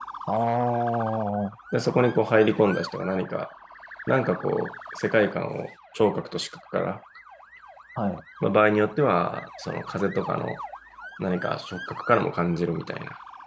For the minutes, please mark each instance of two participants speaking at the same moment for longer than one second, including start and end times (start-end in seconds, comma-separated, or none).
none